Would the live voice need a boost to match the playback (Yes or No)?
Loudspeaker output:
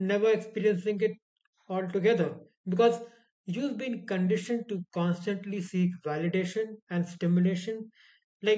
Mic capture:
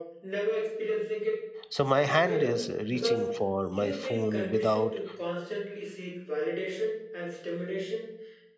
No